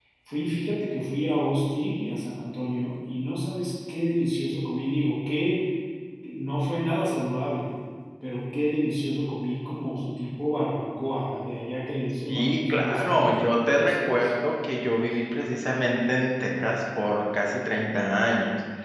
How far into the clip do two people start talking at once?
12.3 s

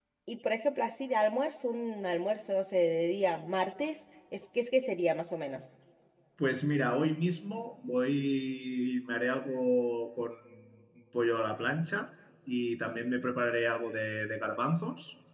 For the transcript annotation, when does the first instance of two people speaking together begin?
none

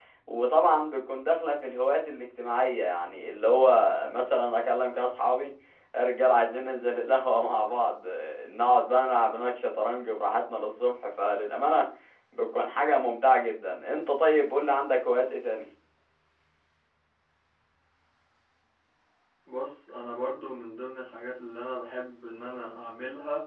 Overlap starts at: none

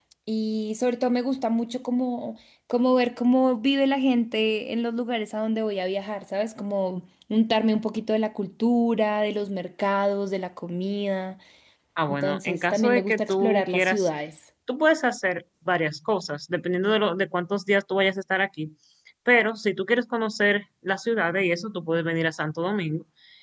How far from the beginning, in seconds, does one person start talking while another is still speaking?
12.1 s

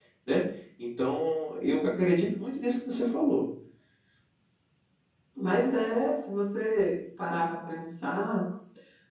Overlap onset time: none

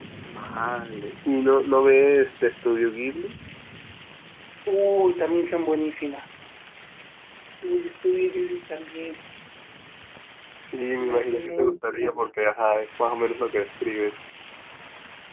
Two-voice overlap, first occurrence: 11.0 s

